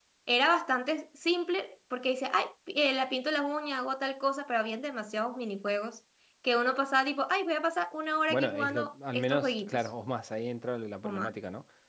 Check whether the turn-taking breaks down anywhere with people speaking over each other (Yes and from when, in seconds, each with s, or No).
Yes, from 8.3 s